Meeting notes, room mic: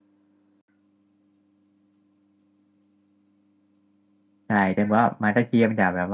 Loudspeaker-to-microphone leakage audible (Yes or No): No